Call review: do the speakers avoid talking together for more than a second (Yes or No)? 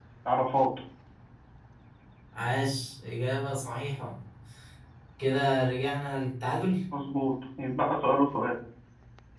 Yes